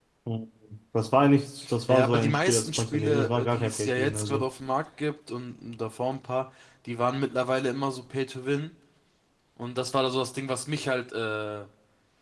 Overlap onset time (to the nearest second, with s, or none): 2 s